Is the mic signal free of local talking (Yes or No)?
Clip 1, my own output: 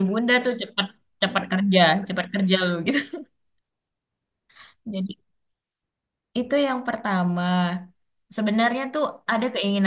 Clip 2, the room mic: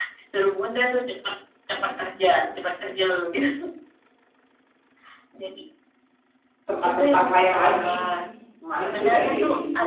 No